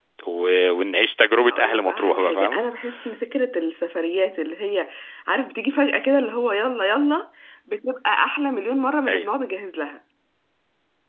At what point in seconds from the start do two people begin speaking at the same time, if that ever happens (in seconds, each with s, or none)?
1.4 s